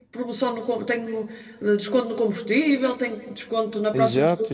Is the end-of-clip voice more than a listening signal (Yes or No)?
Yes